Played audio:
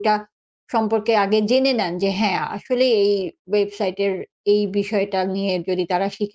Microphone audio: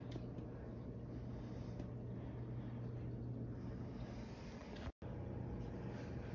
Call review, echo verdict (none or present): none